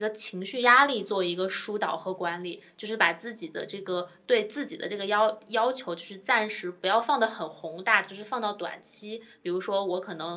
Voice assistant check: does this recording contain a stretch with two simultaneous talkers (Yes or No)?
No